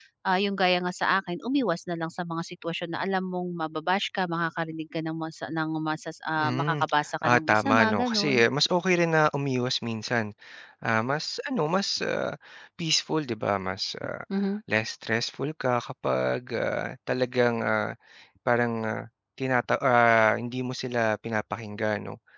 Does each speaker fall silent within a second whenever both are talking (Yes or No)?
No